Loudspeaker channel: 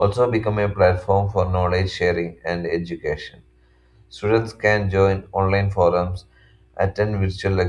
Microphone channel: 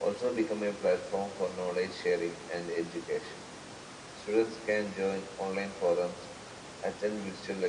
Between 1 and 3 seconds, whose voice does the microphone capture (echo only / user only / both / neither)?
echo only